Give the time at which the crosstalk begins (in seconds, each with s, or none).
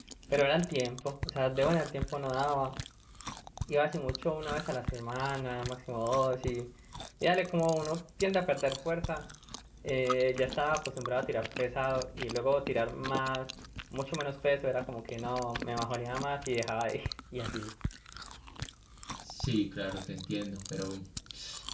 none